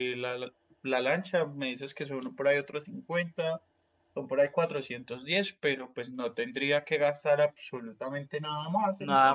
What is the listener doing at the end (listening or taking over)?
taking over